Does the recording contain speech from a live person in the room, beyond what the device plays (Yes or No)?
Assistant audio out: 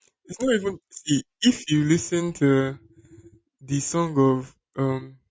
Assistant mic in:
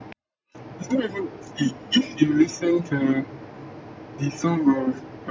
No